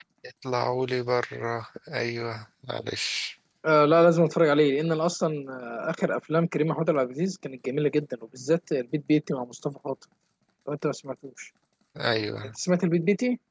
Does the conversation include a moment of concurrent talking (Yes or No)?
No